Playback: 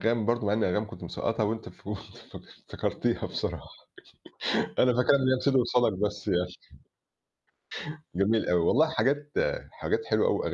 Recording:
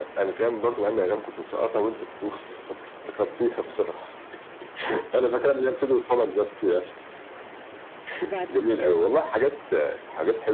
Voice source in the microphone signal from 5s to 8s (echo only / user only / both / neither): echo only